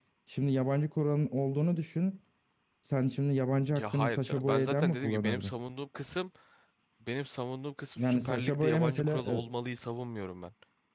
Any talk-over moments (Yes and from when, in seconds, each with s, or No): Yes, from 3.8 s